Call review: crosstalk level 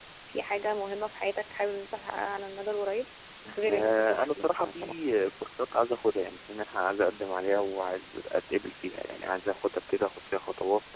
present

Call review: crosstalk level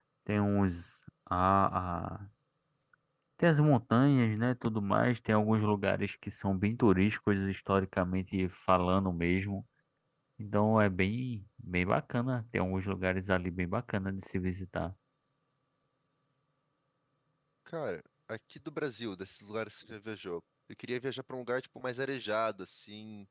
none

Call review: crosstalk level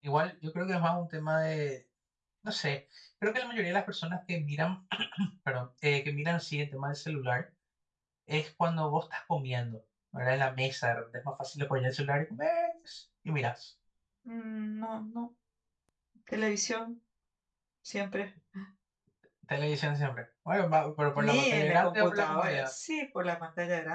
present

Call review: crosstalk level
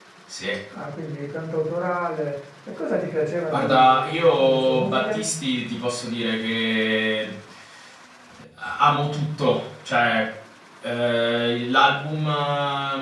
present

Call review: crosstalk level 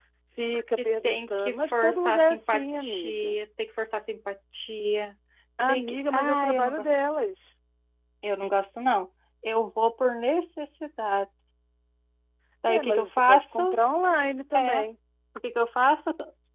present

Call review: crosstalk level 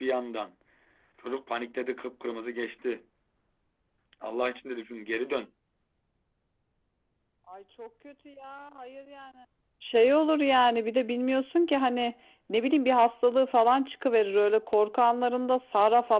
none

